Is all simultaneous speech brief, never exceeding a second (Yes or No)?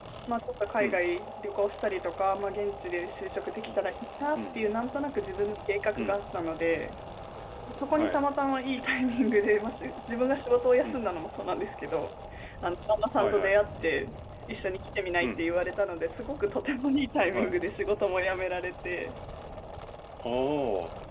Yes